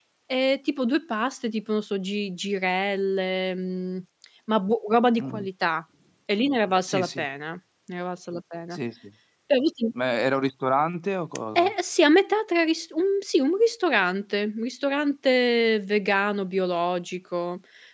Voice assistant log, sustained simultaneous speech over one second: none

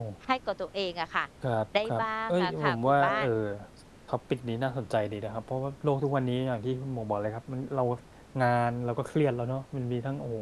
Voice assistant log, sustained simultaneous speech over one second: present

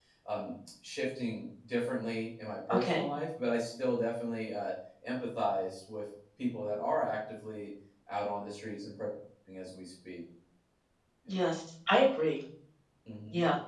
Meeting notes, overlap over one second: none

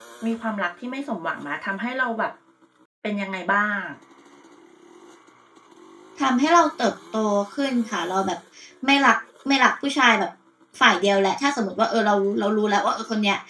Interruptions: none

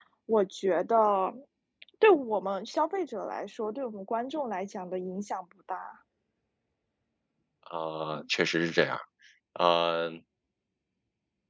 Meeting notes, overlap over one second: none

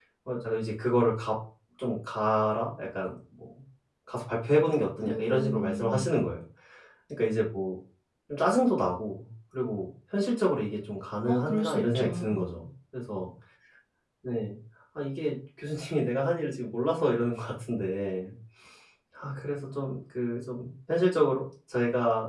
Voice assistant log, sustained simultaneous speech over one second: present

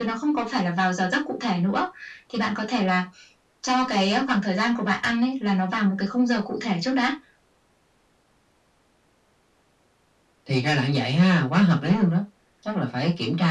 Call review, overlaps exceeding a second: none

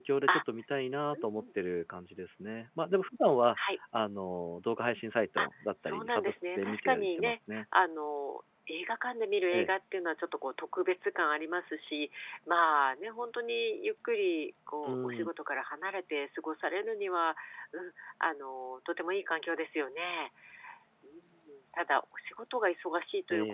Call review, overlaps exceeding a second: present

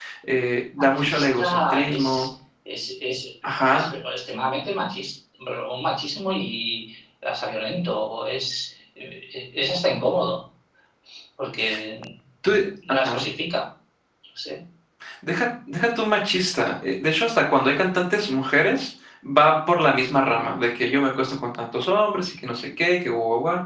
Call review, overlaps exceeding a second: present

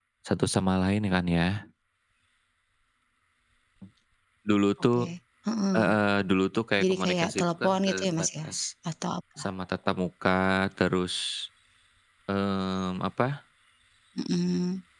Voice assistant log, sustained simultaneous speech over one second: present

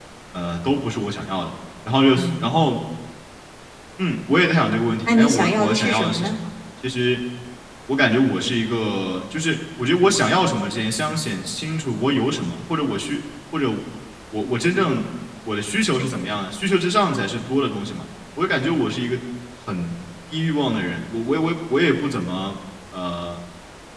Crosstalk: present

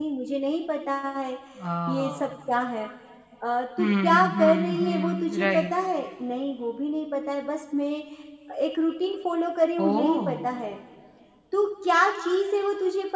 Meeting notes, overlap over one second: present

